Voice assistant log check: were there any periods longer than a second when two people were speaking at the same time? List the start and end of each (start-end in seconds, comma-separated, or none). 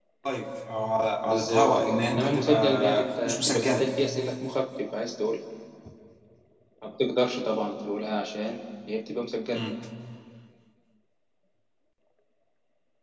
1.2-3.9